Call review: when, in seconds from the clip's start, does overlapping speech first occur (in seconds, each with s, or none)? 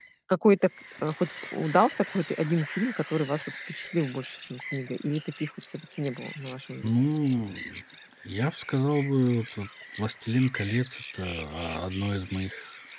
none